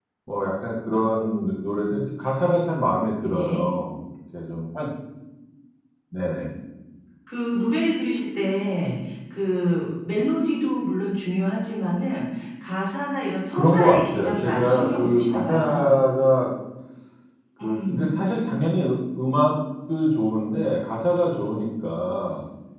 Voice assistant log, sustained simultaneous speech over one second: present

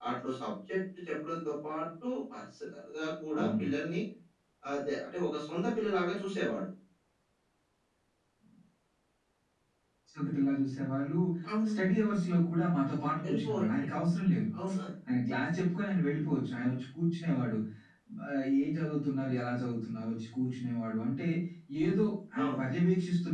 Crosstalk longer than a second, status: none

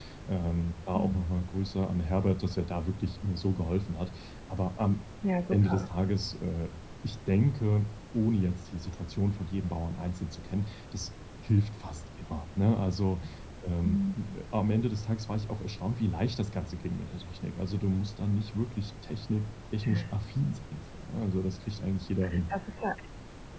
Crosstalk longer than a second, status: none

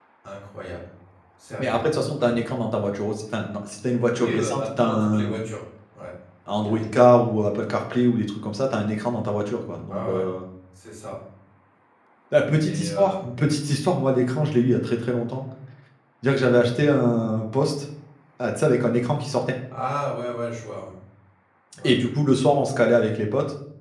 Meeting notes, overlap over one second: present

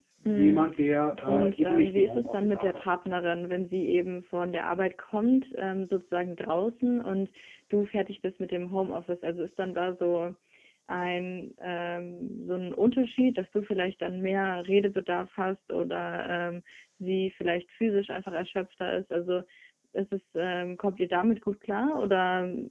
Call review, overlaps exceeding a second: present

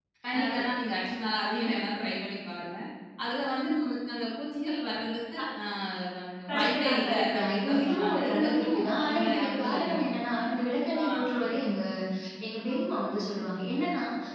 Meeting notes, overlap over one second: present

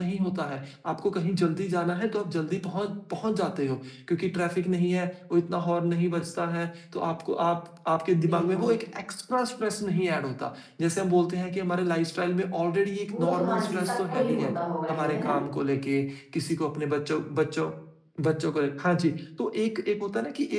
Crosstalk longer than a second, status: present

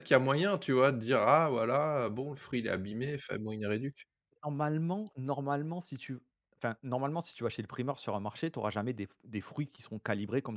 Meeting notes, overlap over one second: none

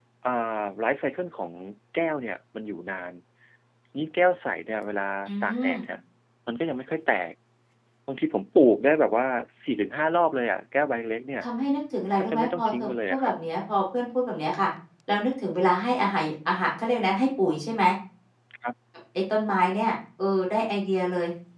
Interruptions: present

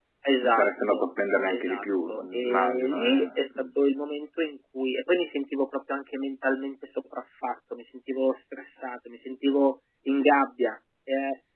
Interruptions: present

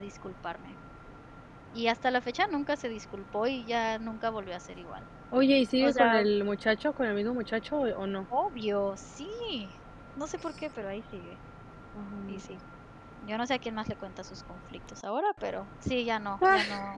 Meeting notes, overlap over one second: none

